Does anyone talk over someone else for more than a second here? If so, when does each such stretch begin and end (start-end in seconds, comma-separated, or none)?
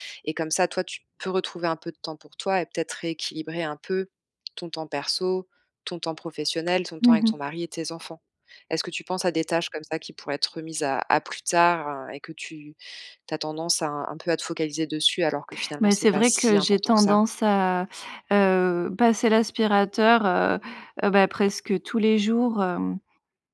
15.8-17.2